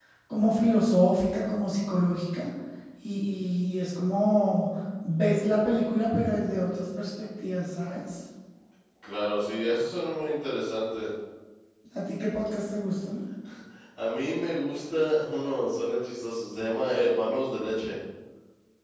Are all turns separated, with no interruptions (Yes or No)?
Yes